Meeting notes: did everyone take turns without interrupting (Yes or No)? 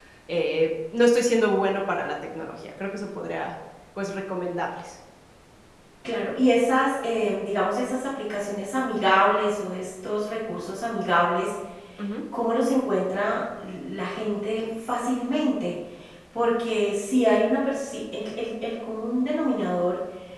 Yes